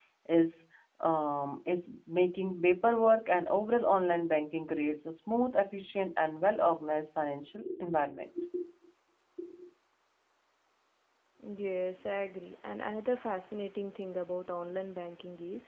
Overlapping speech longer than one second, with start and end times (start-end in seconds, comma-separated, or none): none